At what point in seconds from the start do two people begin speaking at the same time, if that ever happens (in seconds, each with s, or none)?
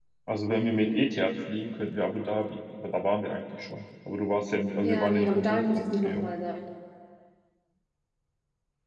4.8 s